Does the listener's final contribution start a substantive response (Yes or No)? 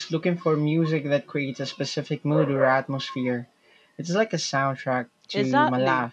Yes